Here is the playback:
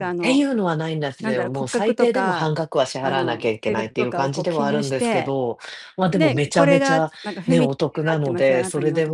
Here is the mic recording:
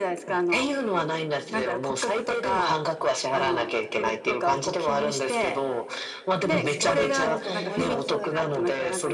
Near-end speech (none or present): present